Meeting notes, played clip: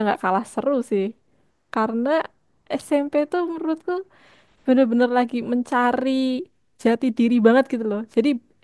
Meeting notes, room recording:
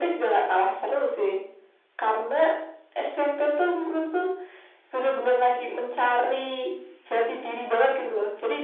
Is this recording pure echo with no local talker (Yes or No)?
Yes